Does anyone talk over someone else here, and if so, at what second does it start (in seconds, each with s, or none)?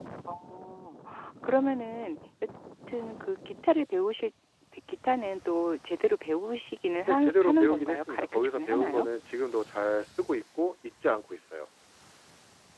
7.0 s